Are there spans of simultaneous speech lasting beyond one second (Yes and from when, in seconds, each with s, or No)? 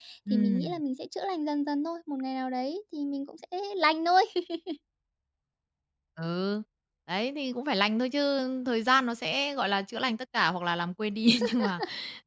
No